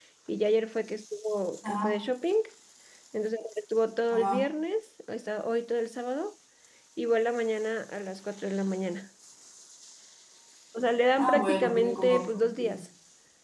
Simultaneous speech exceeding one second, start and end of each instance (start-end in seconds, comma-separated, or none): 11.2-12.8